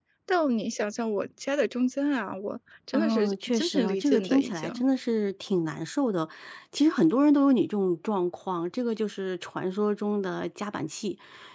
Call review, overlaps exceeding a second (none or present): present